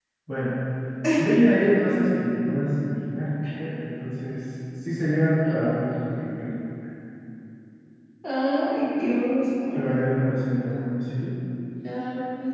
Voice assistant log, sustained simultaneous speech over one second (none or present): none